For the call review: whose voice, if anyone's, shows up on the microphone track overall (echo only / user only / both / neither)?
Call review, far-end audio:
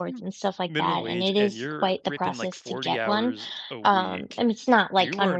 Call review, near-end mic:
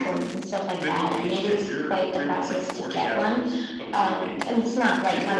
echo only